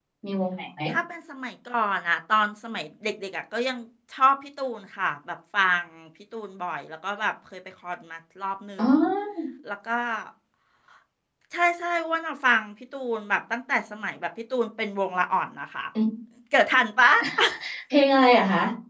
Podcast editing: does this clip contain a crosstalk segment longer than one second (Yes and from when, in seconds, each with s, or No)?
No